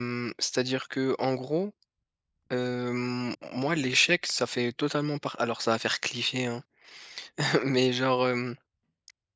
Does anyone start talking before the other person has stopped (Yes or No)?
No